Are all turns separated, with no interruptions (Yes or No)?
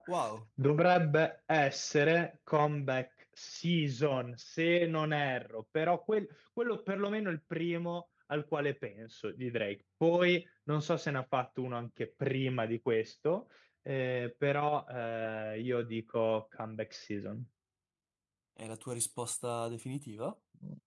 Yes